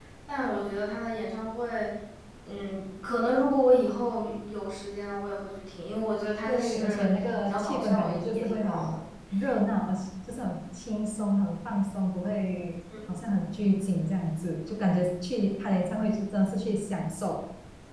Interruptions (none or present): present